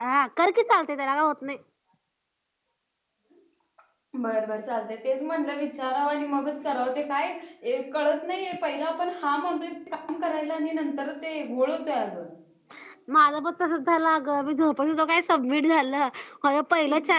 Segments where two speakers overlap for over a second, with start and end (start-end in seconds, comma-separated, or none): none